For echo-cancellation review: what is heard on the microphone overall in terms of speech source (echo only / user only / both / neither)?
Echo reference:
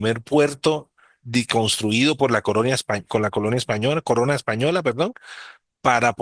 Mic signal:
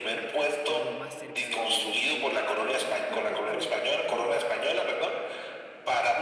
both